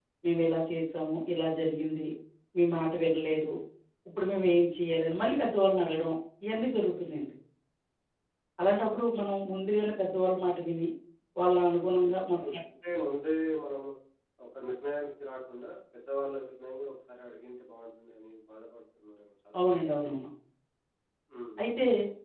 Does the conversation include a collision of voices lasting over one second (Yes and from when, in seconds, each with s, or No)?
No